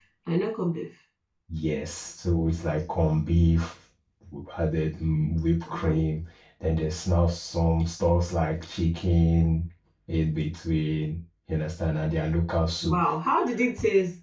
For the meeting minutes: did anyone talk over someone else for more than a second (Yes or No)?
No